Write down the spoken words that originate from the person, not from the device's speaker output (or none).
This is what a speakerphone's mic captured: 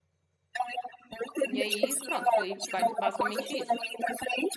E aí, pronto, foi ba- basicamente isso.